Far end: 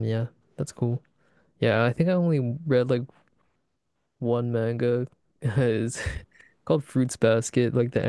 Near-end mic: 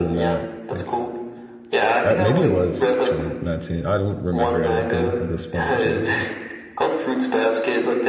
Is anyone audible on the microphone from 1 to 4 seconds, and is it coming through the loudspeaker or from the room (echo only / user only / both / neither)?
both